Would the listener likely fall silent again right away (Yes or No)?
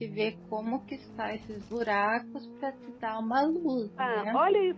No